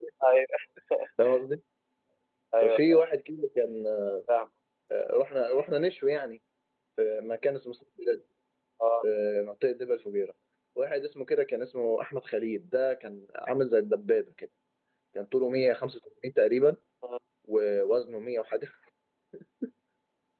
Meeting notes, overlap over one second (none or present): none